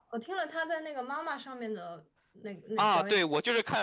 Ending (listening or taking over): taking over